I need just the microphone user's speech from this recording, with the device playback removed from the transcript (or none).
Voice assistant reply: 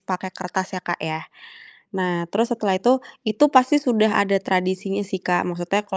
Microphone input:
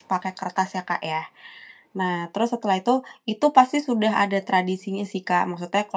none